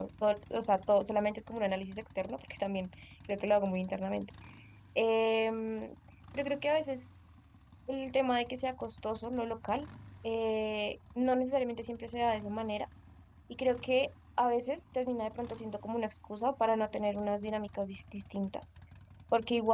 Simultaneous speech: No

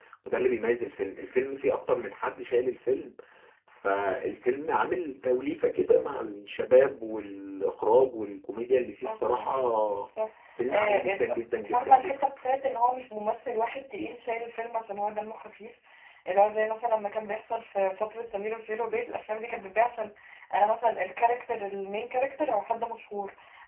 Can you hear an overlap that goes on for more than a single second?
Yes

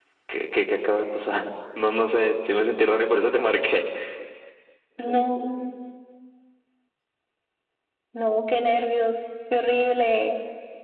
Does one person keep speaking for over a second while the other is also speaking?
No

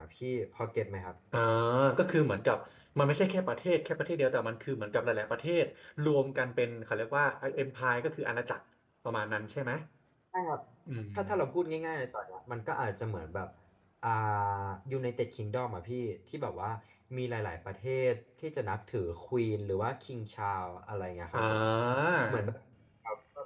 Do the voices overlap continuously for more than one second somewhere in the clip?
No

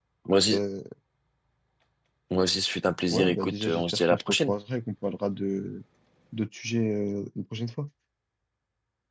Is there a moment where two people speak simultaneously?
Yes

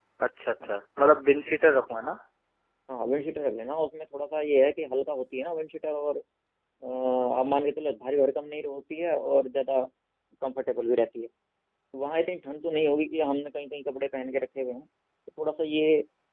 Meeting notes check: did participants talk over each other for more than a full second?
No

